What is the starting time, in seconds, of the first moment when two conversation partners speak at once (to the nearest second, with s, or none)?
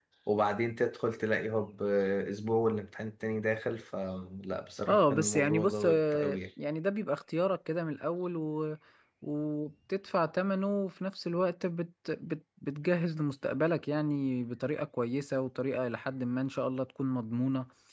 5 s